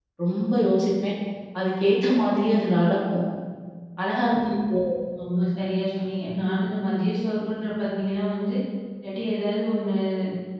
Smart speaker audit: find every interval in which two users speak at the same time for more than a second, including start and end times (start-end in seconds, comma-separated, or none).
none